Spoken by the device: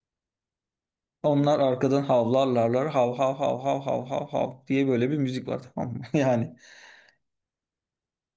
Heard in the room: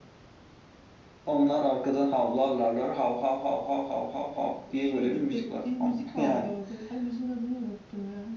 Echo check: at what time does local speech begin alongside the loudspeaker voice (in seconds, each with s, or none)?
4.7 s